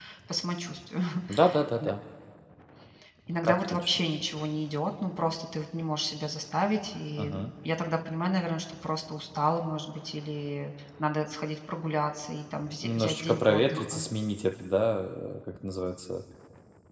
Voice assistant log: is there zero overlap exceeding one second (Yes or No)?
No